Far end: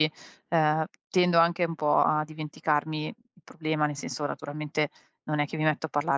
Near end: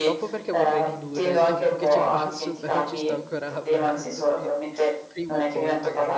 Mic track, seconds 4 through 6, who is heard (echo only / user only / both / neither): both